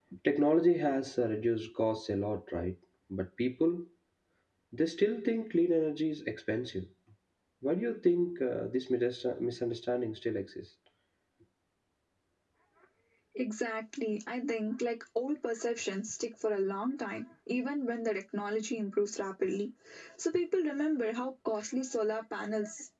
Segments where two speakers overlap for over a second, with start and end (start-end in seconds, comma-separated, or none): none